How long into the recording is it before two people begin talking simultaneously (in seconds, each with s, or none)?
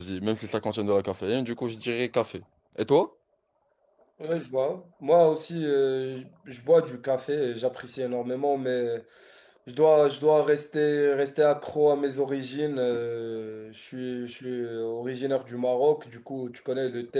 none